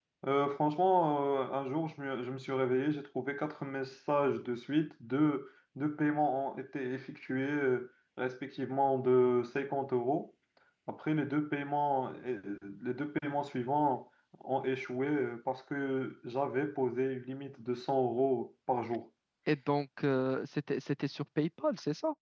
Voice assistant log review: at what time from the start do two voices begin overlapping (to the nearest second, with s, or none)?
none